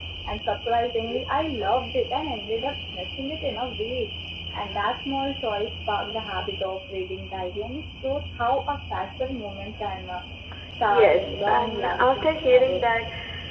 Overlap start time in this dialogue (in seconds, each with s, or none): 10.9 s